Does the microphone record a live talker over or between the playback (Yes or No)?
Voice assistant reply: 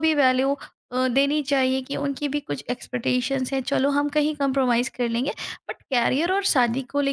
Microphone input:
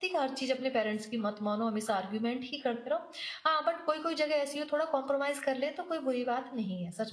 Yes